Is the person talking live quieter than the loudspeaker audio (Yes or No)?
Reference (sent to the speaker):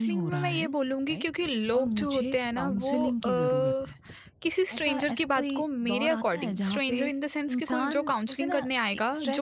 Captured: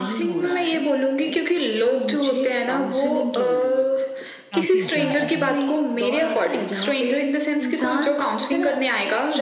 Yes